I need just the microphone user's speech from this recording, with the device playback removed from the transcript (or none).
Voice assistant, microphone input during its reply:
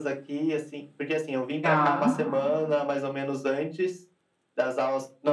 Tá.